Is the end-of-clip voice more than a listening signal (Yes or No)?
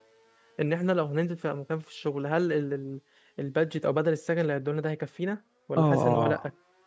Yes